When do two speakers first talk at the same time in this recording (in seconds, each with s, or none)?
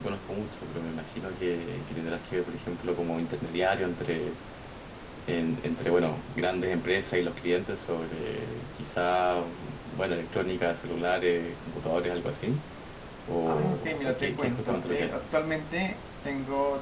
13.5 s